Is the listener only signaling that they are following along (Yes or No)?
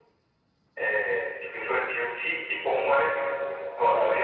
Yes